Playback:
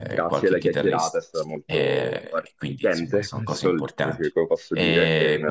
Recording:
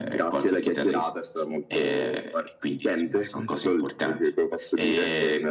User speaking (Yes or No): No